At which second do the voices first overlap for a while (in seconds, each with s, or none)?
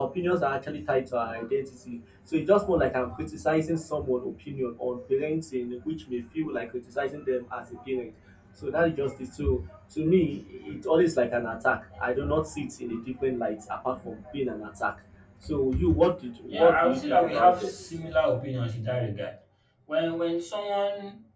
16.5 s